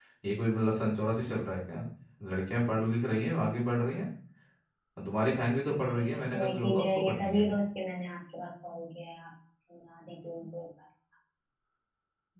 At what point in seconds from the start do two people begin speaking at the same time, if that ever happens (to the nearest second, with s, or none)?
6 s